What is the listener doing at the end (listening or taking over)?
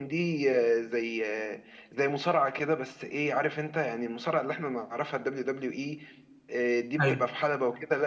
listening